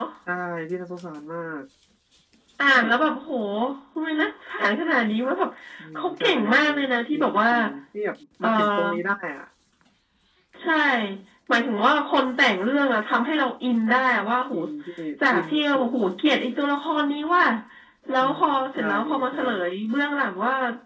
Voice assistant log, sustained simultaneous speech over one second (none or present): present